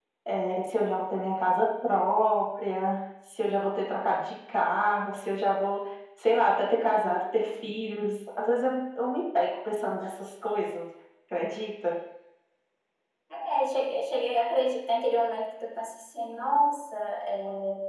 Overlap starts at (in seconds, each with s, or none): none